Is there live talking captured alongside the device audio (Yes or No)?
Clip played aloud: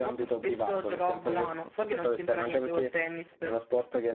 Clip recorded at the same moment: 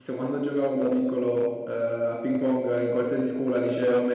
Yes